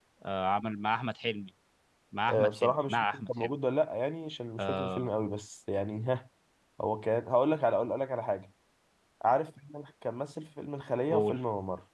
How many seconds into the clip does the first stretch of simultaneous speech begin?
2.3 s

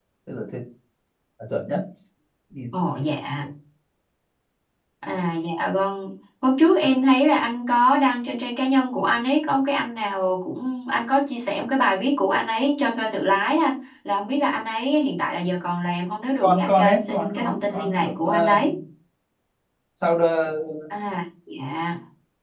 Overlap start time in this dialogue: 16.4 s

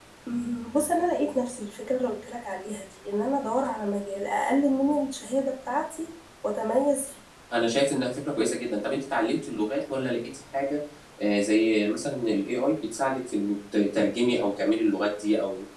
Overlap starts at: none

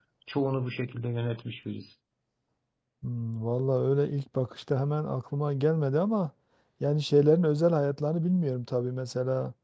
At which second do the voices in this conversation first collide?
none

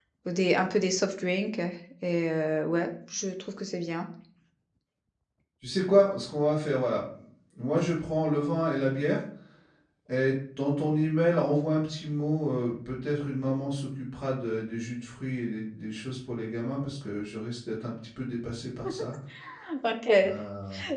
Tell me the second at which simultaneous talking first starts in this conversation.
none

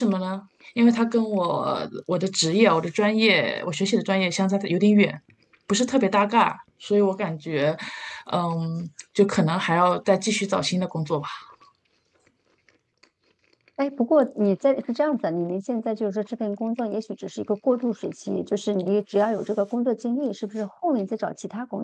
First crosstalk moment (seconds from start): none

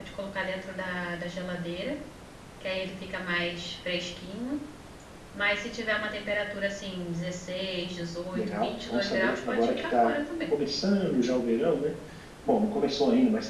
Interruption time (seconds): 8.3 s

